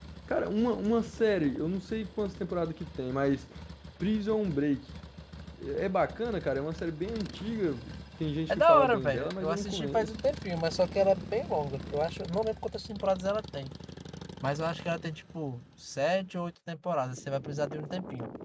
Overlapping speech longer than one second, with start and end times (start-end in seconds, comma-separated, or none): 8.5-10.1